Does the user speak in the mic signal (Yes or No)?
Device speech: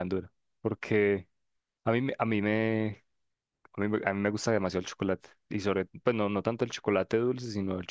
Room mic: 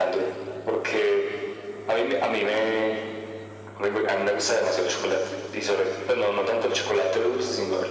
No